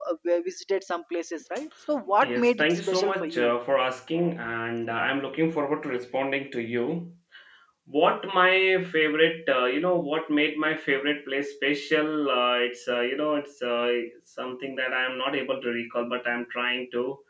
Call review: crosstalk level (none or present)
present